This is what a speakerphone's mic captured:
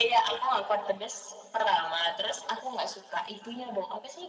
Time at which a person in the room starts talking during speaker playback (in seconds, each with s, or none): none